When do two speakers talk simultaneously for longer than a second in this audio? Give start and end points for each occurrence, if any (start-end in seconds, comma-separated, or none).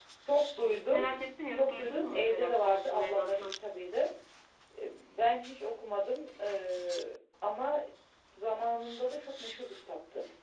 1.5-3.5